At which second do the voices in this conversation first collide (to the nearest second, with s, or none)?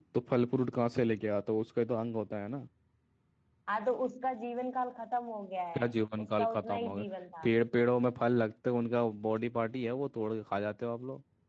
6 s